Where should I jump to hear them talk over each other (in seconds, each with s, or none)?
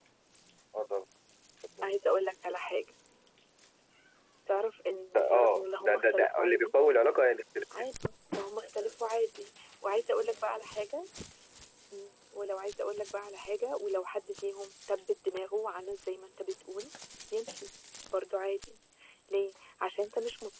5.1 s